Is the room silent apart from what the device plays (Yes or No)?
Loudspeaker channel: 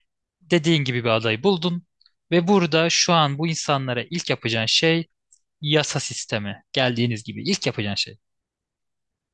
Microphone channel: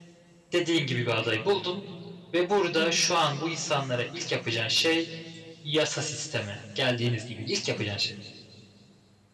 Yes